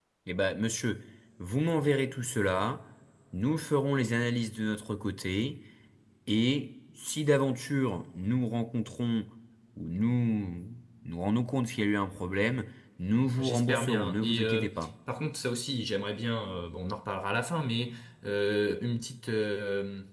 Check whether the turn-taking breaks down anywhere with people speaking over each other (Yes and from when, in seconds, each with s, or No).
Yes, from 13.4 s